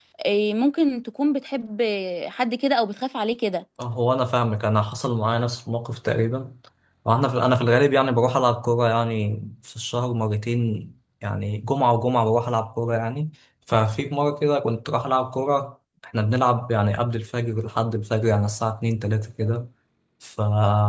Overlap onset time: none

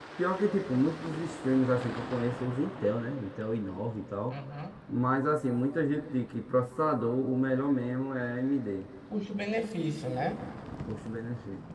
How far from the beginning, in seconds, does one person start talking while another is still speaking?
none

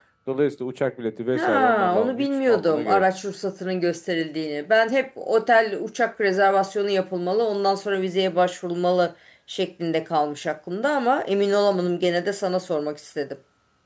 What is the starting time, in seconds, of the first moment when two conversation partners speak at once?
1.3 s

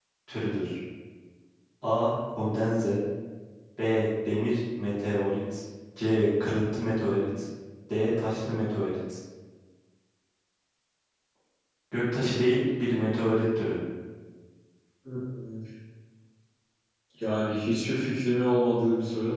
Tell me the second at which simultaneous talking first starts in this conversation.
none

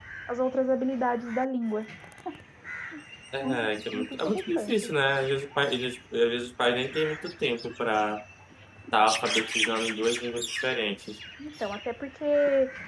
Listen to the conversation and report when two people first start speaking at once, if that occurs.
3.4 s

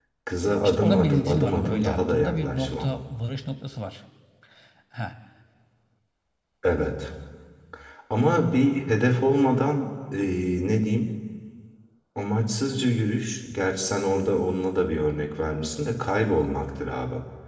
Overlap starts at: 0.6 s

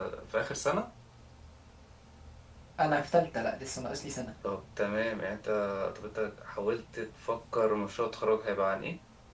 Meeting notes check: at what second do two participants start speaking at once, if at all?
none

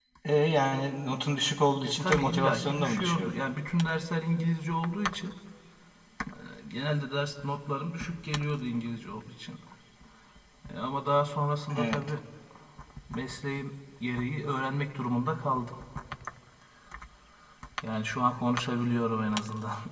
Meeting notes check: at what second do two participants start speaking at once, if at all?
1.9 s

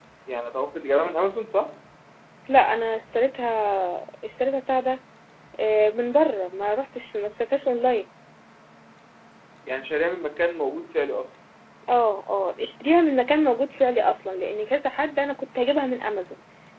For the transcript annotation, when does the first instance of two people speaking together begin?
none

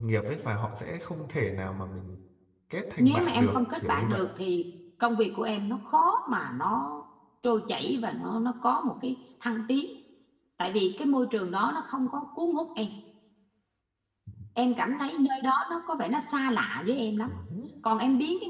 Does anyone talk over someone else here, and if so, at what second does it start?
3.0 s

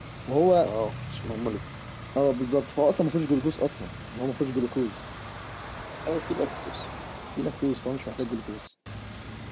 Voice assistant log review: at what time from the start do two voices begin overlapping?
none

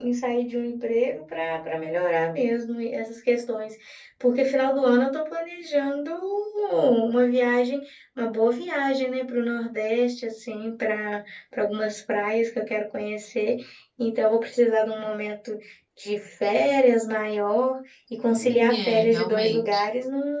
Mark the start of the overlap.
18.3 s

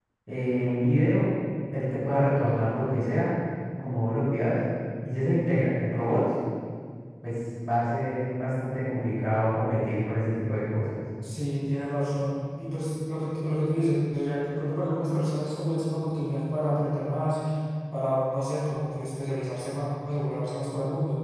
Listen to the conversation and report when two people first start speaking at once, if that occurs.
none

